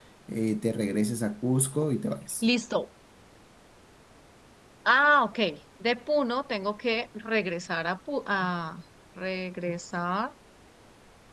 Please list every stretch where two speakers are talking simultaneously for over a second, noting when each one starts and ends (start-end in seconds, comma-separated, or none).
none